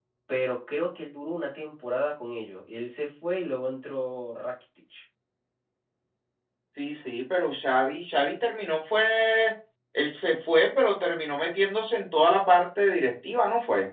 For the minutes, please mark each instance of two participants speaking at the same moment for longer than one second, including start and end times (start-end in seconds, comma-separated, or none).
none